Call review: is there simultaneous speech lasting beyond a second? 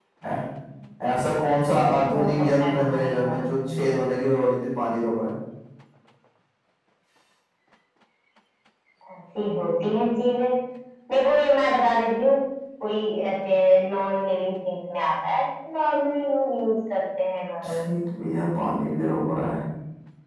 Yes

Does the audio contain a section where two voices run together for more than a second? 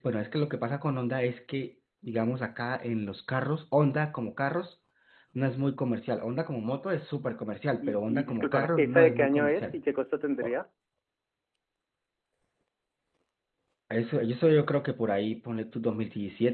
Yes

